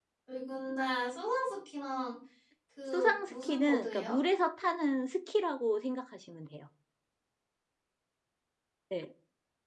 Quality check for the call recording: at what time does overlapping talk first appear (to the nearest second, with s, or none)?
3 s